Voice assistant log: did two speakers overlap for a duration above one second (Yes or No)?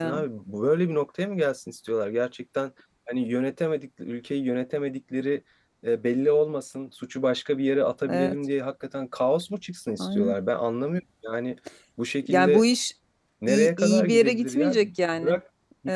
Yes